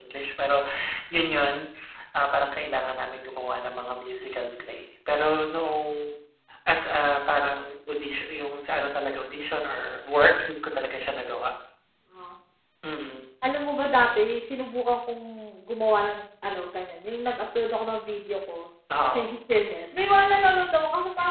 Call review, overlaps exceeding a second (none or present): none